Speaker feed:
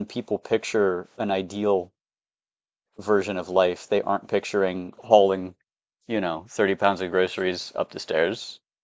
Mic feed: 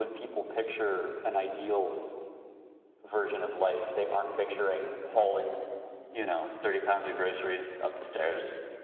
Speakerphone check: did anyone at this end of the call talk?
No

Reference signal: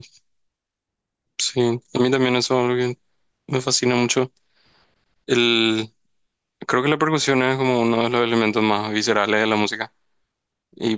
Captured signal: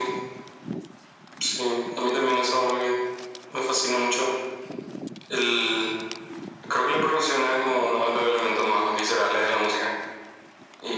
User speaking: No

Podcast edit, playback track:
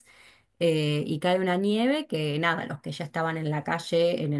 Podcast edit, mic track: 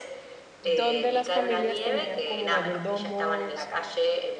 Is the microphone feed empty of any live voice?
No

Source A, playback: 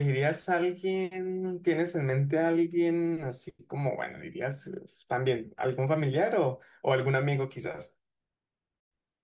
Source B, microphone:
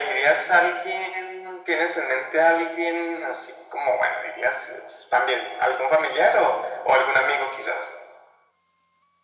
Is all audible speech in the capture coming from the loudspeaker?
Yes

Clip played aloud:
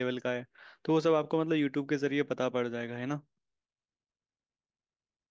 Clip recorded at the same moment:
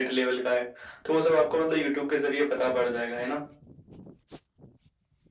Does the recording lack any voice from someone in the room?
Yes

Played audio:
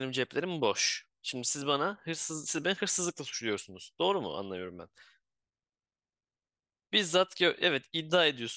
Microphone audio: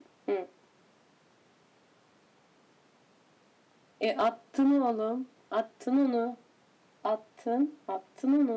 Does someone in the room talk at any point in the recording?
Yes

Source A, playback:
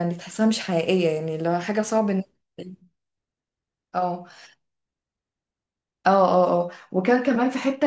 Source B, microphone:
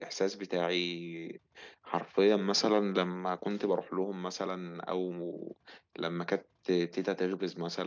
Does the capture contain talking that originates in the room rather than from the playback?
Yes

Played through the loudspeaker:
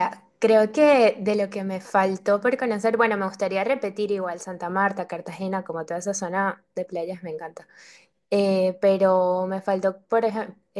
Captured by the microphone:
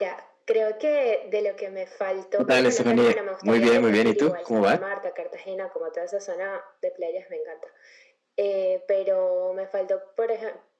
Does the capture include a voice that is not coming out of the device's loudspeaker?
Yes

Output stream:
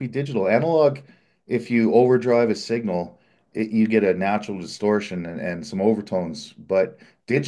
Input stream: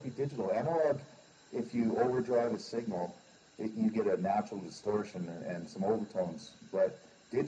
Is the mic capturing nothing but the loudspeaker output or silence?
Yes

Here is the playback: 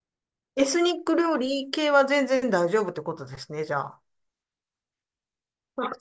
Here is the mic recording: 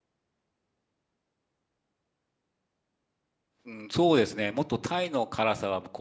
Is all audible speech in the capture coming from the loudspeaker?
No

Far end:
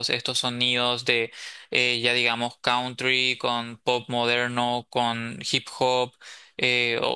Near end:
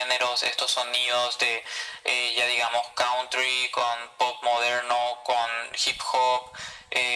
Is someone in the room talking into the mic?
No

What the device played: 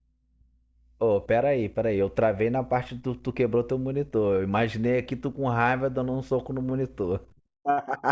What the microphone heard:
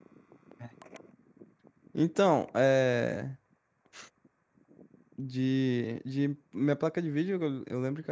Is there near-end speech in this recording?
Yes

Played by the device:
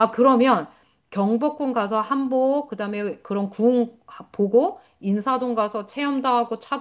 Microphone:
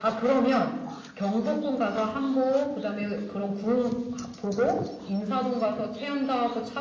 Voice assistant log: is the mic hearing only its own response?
Yes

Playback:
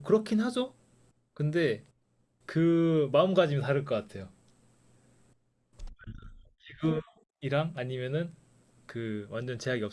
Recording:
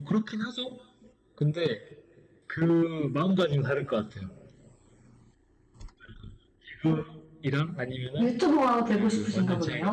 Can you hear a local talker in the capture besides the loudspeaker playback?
Yes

